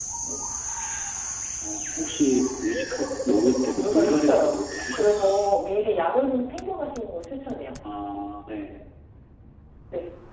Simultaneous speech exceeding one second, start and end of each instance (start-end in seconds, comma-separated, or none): 3.7-5.3